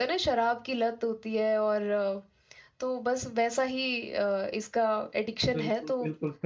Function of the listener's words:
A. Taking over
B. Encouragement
A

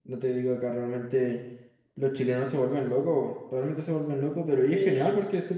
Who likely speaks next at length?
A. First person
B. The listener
A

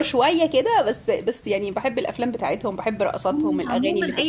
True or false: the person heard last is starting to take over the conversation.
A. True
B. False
A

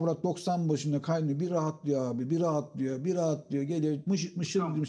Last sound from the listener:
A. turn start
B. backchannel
A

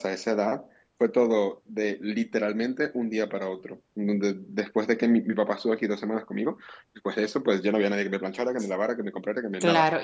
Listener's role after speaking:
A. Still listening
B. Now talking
B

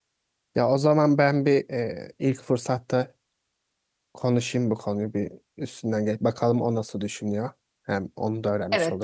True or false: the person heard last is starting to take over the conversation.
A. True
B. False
A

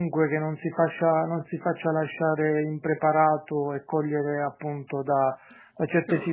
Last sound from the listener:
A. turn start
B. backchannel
B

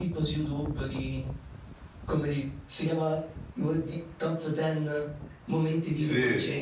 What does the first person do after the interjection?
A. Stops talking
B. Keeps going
A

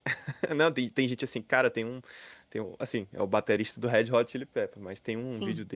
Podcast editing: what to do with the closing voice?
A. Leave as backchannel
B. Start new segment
A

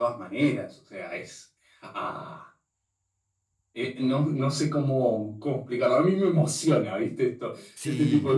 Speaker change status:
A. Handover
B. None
A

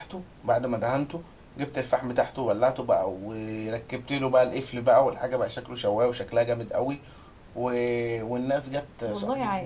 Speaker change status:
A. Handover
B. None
B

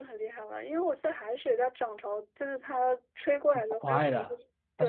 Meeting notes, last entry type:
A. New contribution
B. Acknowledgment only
A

